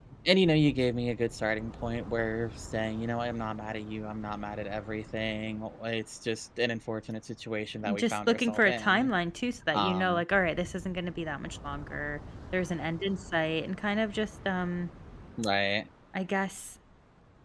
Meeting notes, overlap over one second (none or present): present